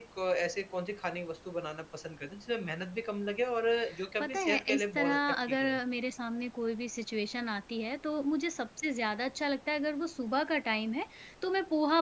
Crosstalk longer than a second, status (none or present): present